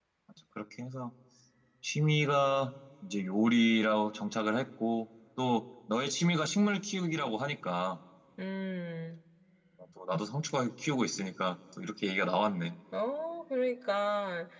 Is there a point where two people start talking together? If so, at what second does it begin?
none

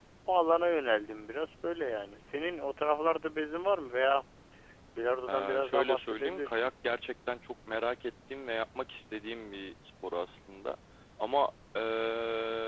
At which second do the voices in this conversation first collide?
5.3 s

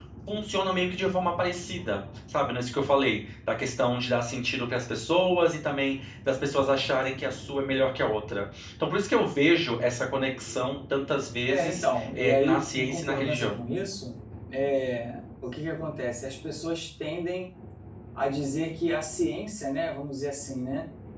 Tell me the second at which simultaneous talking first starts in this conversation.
11.4 s

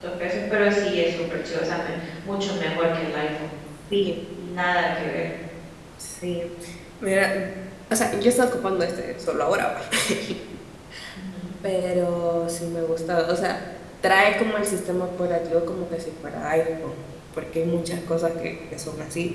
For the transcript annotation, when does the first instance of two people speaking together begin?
none

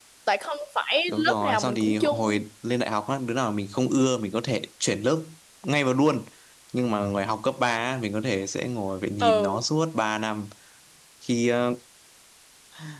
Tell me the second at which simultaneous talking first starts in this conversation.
1.1 s

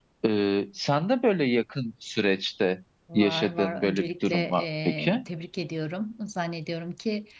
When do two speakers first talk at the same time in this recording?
3.1 s

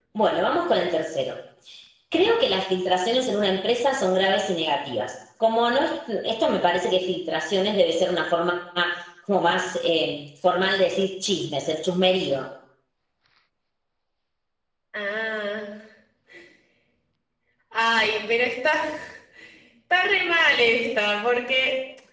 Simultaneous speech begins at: none

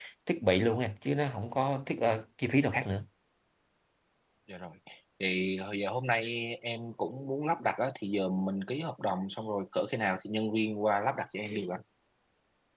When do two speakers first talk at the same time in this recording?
none

